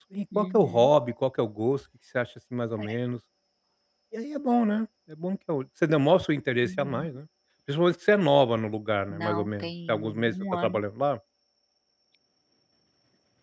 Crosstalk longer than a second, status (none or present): present